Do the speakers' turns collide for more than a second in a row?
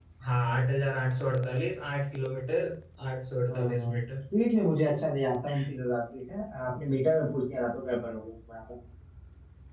No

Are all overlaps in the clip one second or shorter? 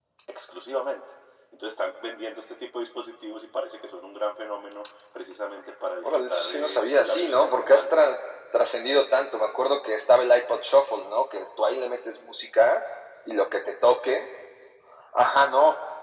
No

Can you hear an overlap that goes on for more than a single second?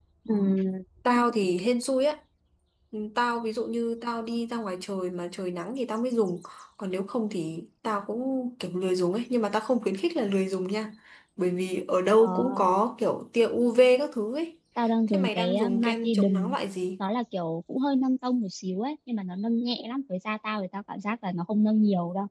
Yes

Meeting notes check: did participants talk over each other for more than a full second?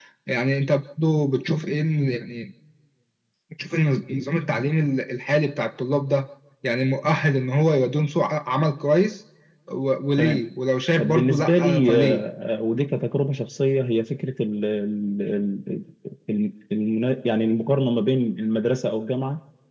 Yes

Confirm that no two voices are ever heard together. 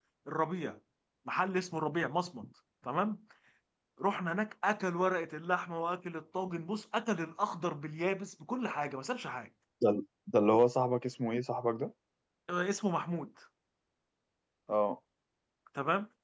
Yes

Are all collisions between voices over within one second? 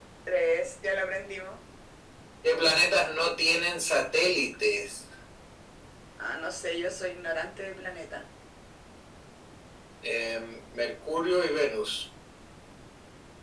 Yes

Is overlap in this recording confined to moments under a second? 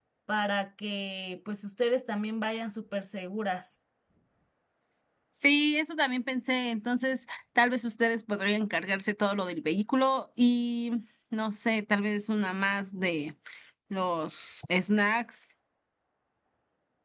Yes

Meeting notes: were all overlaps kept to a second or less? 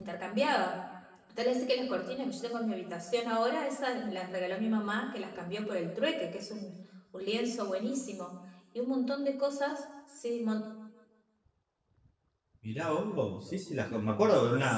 Yes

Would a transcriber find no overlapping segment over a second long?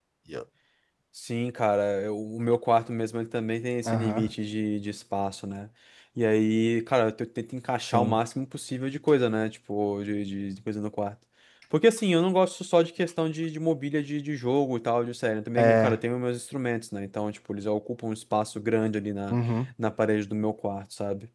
Yes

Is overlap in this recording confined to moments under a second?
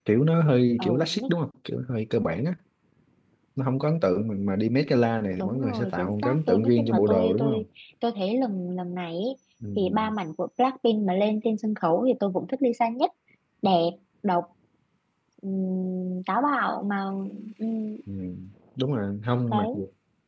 No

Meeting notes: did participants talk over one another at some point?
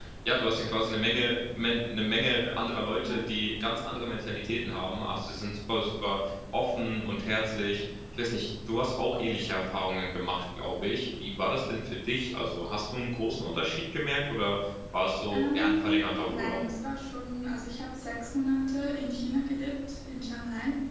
Yes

